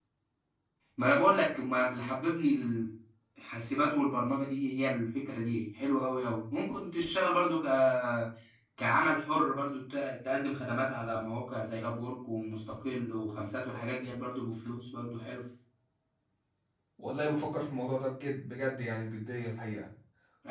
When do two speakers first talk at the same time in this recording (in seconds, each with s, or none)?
none